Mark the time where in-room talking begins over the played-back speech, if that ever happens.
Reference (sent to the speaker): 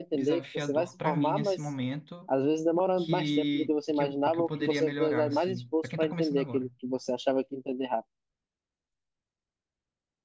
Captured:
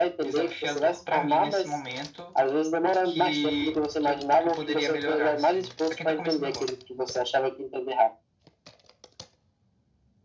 none

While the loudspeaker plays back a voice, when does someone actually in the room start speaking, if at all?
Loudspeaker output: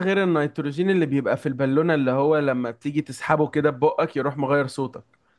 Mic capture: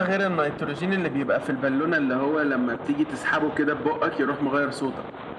none

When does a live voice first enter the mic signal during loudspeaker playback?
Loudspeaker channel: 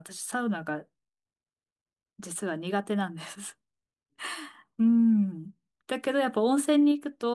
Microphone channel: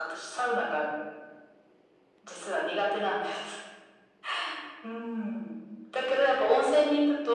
none

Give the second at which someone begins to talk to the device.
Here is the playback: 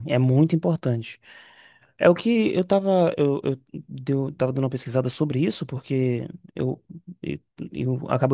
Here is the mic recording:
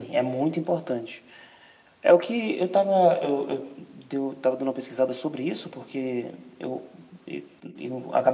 none

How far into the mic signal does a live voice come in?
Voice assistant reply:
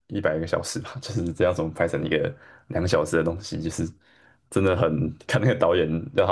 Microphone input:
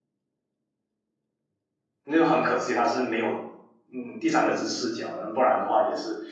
2.0 s

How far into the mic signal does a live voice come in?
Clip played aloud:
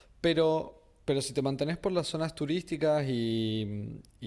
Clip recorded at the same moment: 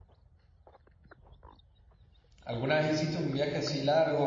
2.4 s

